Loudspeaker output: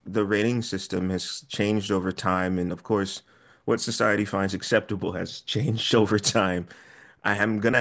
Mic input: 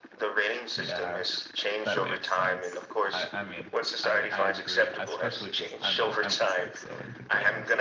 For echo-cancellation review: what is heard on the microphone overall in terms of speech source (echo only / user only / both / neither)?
both